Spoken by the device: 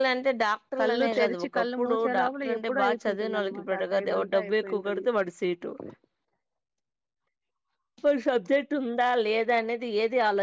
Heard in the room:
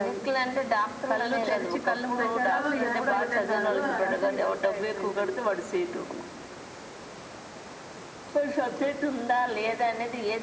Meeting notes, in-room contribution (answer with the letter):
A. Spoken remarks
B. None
A